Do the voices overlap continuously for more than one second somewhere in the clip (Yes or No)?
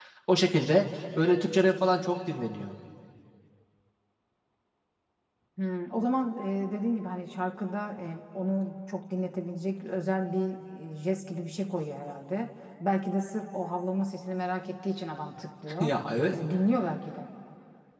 No